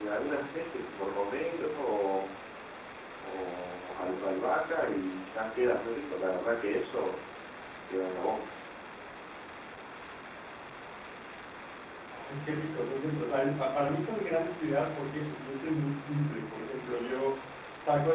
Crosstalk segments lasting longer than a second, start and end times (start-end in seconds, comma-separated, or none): none